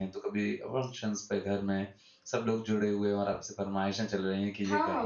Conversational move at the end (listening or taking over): taking over